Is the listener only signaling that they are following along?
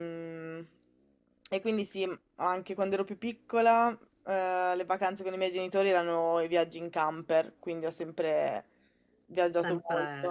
Yes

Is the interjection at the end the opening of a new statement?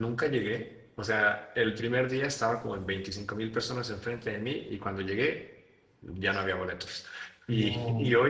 No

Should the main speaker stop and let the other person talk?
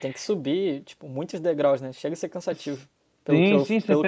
Yes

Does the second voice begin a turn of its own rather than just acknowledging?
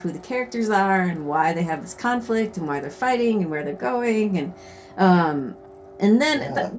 No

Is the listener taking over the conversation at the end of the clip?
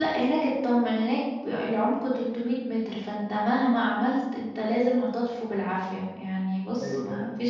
No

